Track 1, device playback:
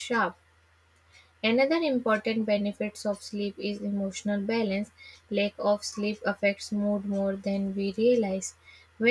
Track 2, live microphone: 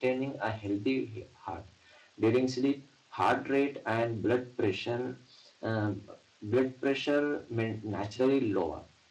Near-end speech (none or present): present